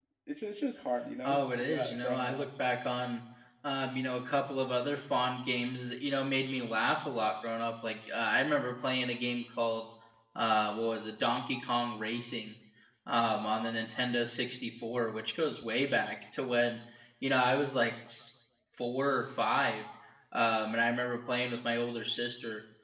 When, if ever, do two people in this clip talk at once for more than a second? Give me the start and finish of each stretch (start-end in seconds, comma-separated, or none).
1.2-2.4